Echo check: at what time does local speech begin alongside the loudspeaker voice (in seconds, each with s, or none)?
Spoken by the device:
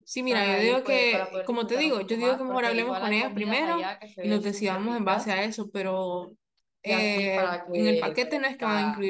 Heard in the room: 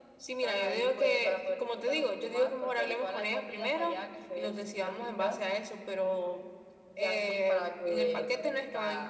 none